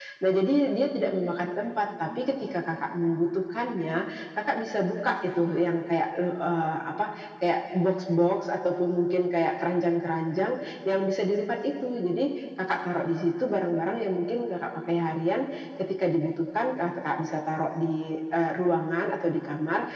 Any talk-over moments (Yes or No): No